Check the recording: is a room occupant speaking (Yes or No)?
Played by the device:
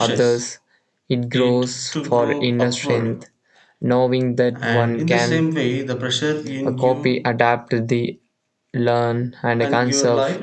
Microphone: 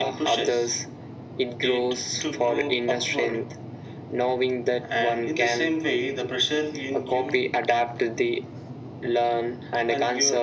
No